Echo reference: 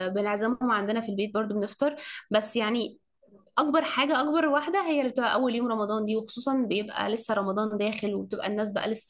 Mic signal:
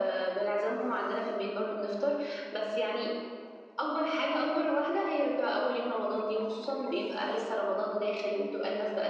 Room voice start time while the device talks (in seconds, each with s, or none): none